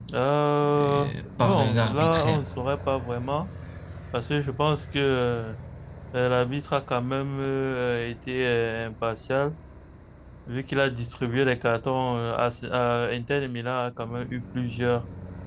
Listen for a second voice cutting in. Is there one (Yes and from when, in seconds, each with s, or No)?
Yes, from 0.6 s